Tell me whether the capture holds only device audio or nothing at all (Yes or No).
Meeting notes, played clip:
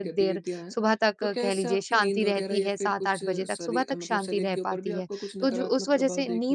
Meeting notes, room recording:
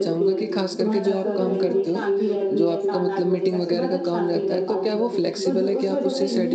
No